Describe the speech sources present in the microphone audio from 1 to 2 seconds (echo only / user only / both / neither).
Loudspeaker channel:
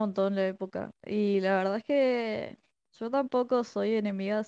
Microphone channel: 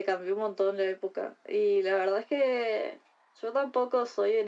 echo only